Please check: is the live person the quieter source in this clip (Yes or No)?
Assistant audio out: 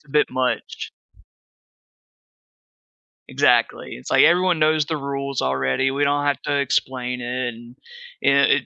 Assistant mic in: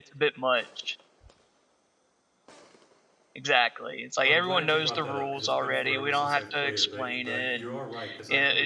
Yes